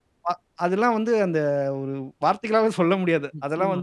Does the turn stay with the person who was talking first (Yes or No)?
Yes